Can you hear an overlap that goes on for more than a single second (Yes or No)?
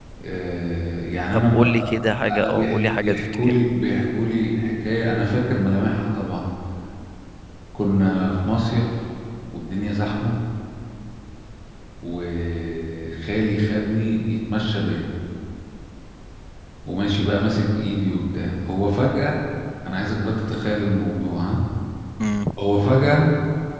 Yes